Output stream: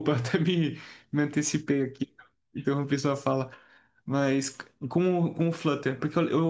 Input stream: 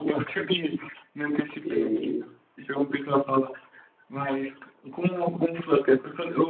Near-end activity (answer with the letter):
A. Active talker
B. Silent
A